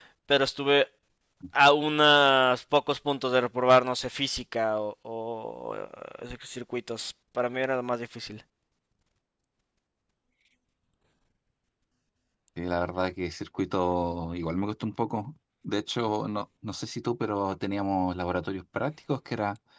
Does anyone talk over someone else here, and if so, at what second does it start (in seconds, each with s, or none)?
none